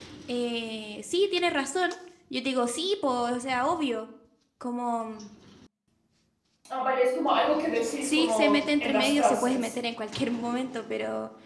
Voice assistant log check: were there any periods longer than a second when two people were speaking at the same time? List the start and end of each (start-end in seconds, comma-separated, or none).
8.0-9.7